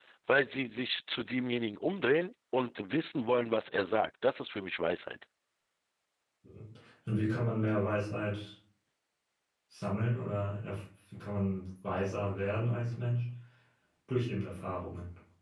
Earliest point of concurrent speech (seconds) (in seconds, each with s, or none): none